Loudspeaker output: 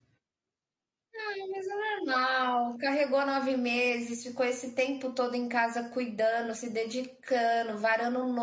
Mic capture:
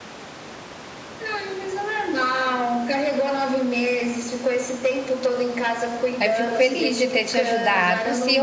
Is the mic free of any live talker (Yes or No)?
No